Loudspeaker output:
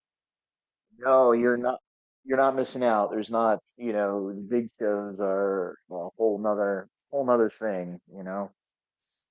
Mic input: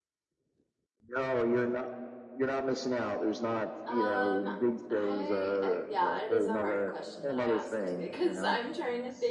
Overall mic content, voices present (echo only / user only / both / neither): both